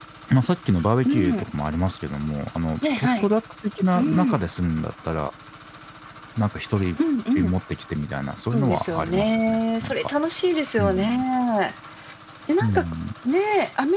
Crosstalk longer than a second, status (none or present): present